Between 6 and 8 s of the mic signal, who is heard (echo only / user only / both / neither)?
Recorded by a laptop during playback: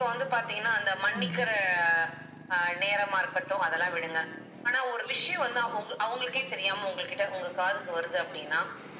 echo only